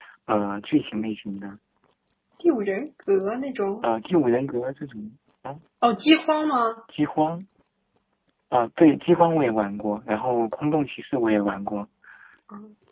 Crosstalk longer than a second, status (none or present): none